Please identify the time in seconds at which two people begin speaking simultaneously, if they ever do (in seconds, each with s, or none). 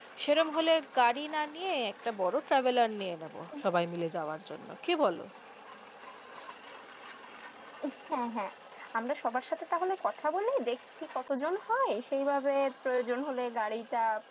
none